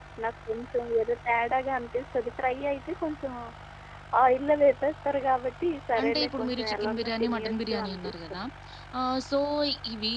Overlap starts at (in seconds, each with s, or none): 6.0 s